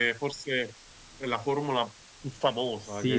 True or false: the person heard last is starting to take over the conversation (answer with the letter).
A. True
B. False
A